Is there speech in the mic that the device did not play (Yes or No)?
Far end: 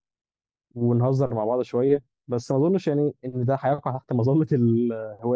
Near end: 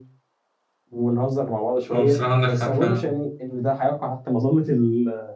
Yes